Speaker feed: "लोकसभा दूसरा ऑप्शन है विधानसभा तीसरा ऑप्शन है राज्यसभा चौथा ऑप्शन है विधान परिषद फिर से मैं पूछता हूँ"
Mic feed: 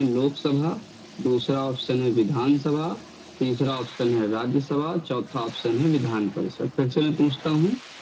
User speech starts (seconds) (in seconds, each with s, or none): none